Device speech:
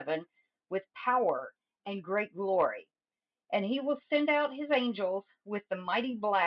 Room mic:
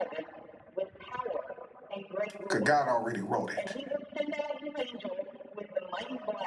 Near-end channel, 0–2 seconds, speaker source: echo only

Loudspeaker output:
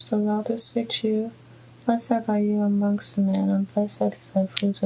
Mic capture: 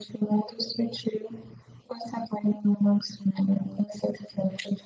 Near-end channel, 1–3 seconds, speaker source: echo only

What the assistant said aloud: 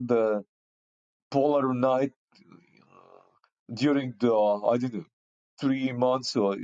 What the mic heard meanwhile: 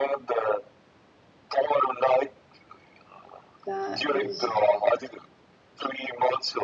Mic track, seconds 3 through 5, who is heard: both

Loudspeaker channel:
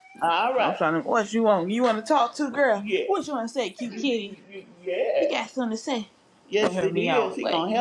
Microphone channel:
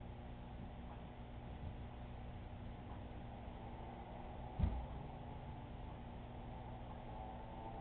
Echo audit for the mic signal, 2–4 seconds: neither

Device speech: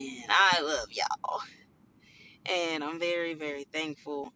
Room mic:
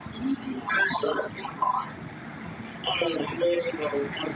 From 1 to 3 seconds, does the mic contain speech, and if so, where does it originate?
echo only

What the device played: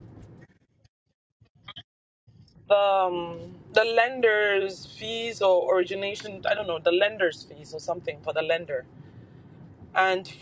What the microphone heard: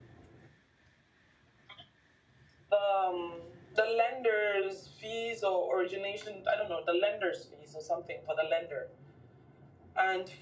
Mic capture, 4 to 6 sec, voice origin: echo only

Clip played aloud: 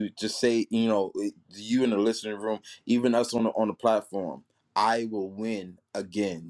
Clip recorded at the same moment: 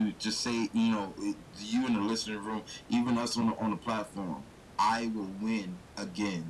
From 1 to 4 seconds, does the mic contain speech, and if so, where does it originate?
echo only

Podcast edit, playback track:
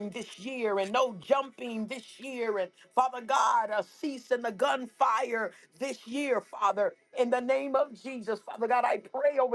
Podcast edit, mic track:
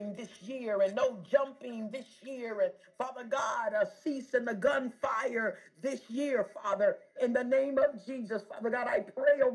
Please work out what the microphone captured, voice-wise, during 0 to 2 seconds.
echo only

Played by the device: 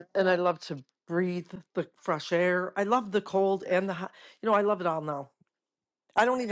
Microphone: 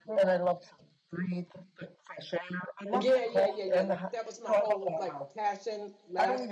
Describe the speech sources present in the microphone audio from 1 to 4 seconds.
both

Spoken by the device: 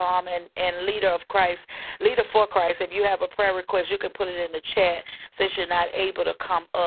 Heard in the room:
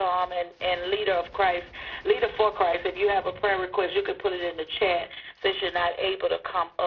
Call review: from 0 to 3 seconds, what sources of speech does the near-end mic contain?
echo only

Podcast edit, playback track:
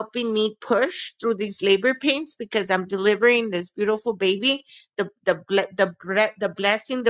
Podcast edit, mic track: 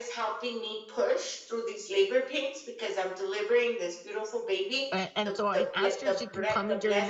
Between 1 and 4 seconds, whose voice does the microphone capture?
echo only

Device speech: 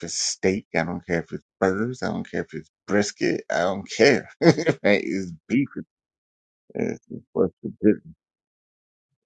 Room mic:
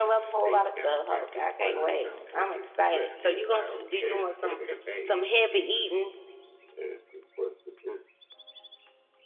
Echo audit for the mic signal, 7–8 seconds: echo only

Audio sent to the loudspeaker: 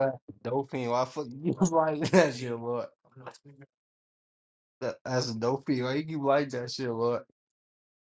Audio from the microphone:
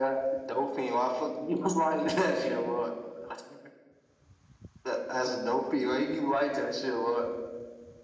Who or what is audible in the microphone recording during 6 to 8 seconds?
echo only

